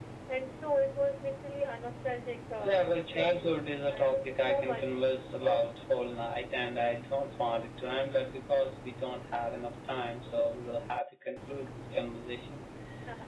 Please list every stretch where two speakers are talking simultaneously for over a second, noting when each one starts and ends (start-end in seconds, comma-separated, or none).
2.6-4.8